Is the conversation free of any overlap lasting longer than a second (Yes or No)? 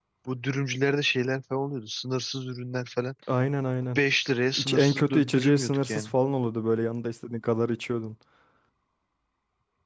No